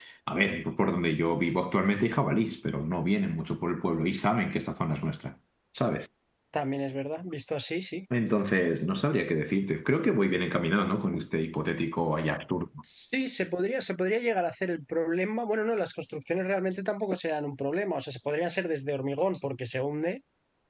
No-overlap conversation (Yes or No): Yes